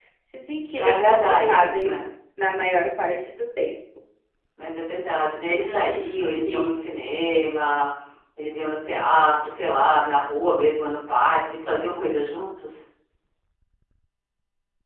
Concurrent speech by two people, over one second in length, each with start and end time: 0.7-2.0, 5.6-6.8

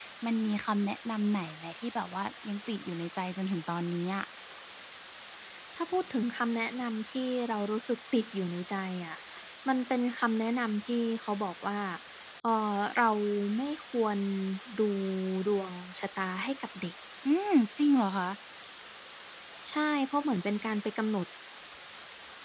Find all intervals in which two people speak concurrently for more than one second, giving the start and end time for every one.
none

